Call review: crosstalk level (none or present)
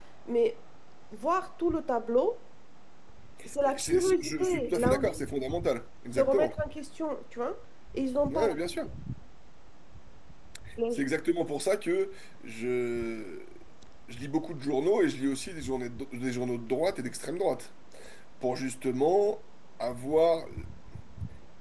present